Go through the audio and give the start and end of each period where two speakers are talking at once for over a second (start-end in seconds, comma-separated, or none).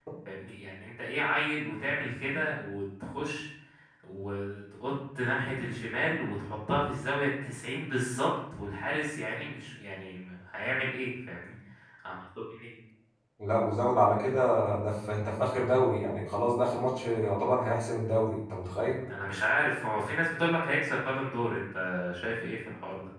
none